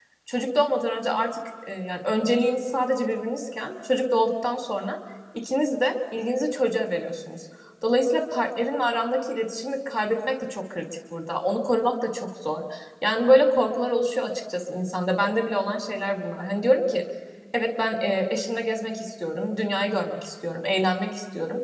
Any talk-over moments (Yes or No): No